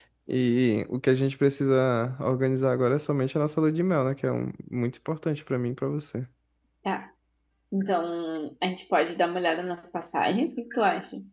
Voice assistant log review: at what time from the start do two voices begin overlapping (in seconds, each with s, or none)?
none